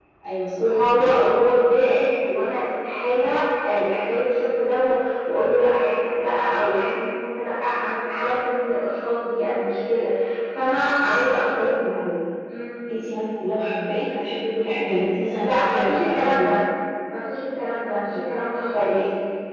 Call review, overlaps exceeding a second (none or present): present